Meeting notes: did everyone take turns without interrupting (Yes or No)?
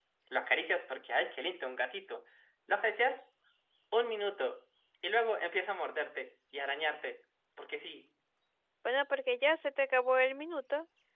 Yes